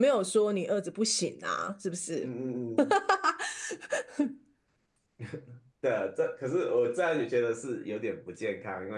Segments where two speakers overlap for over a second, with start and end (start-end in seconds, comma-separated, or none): none